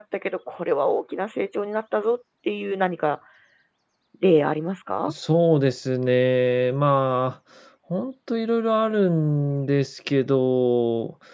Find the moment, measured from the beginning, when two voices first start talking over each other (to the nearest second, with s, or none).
none